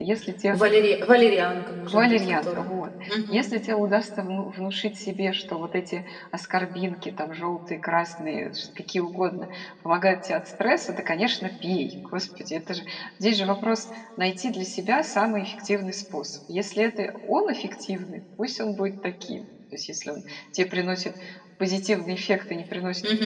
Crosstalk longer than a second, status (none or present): present